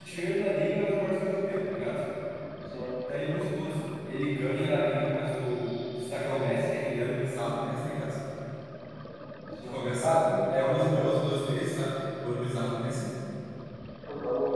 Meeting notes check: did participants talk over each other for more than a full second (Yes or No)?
Yes